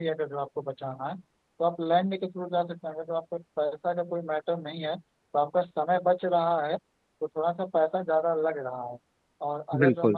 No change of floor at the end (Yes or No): Yes